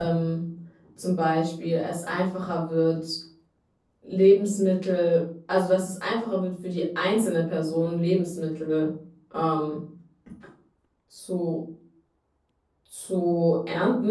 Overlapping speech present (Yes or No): No